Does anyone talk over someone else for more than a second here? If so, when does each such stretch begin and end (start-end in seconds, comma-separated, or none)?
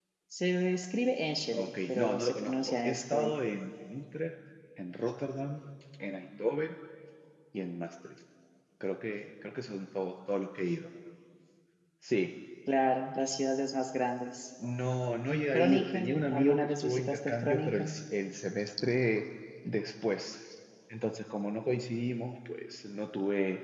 1.6-3.3, 15.5-18.0